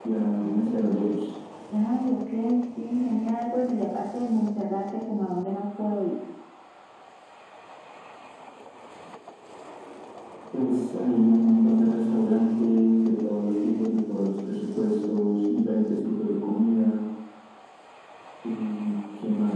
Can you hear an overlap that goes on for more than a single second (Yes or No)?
No